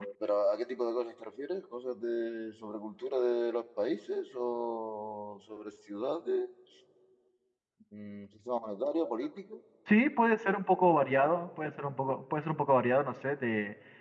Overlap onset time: none

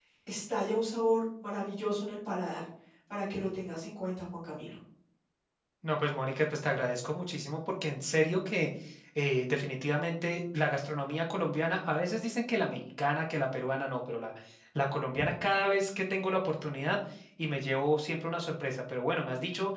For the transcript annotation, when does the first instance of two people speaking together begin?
none

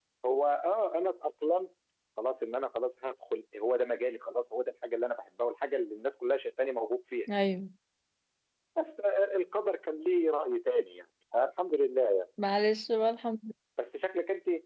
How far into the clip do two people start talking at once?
none

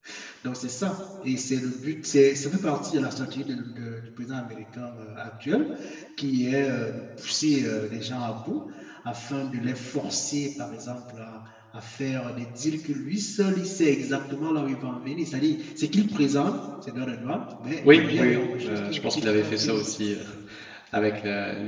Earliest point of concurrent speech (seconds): 17.8 s

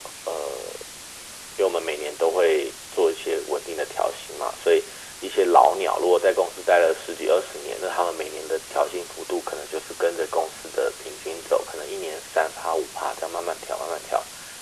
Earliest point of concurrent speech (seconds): none

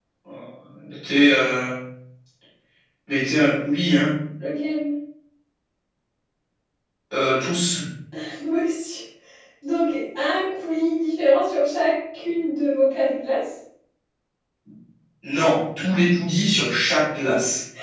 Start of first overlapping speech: none

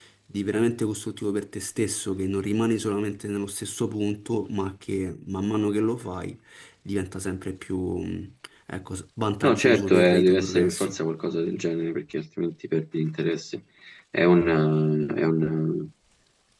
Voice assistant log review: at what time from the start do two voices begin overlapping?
9.4 s

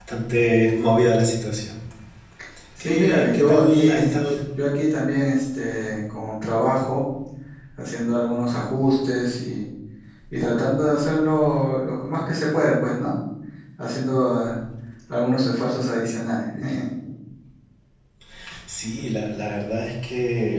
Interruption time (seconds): 2.8 s

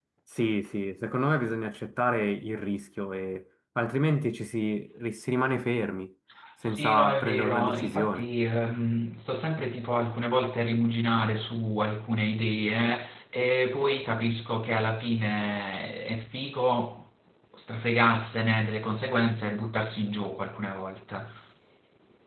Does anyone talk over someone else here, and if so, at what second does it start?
6.6 s

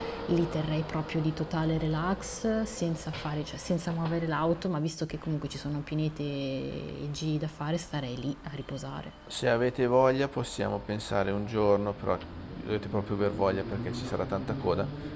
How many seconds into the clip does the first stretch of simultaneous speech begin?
none

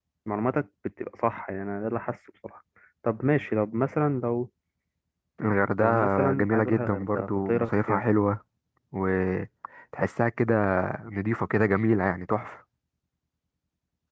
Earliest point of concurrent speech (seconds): 5.8 s

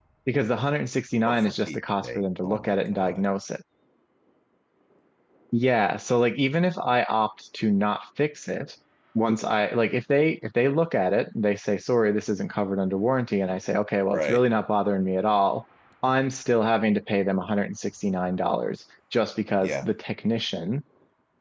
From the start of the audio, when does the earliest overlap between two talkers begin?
1.3 s

